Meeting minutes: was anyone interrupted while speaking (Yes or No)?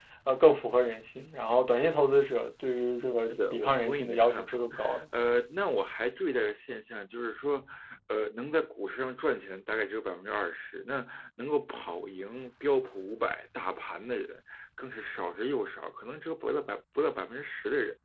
Yes